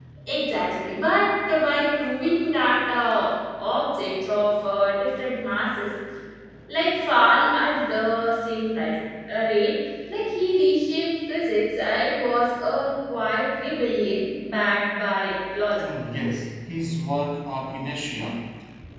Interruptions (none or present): none